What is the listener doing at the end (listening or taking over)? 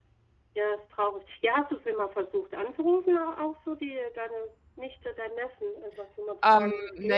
taking over